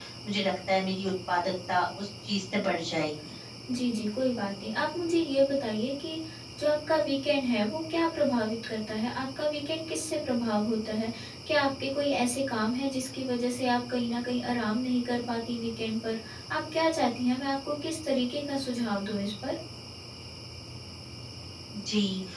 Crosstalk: none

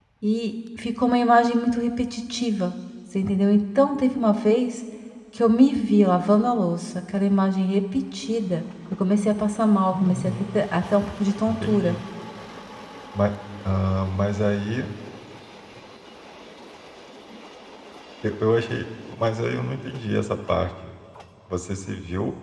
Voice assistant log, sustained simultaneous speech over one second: none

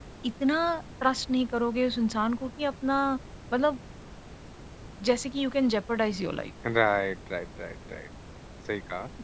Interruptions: none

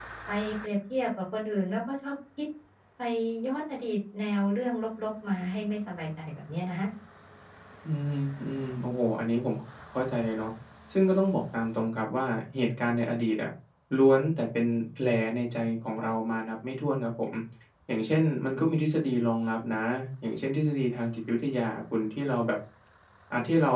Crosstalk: none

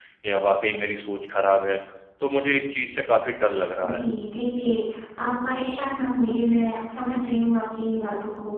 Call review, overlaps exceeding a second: none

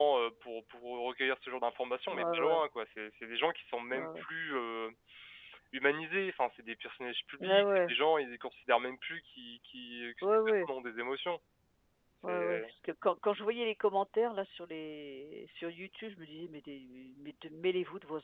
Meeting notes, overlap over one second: none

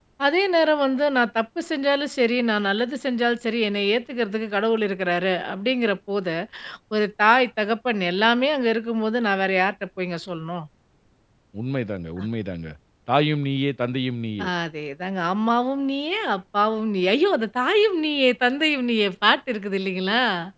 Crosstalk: none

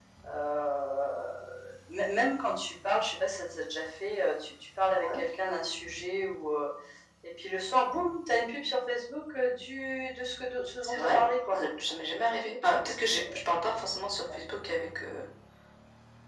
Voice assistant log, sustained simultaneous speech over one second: none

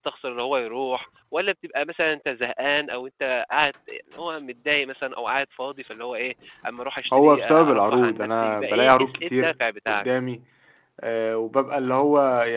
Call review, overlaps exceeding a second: present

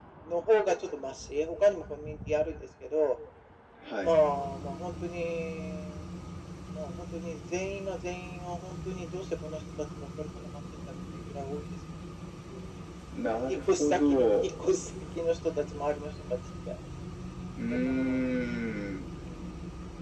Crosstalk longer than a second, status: present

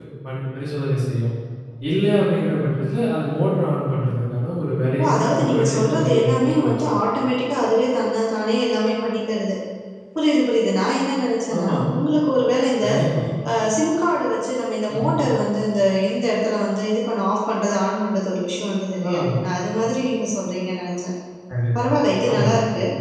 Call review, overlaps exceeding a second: present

